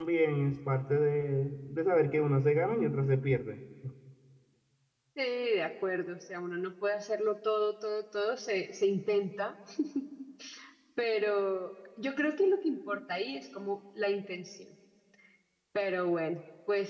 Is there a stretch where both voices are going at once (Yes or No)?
No